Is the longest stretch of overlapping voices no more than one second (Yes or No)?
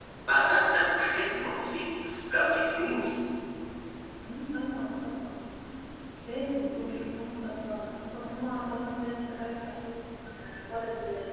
Yes